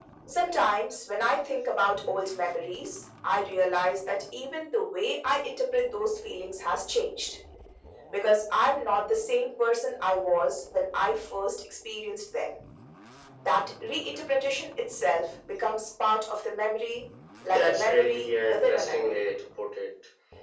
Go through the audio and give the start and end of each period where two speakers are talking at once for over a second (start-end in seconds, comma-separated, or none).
17.4-19.2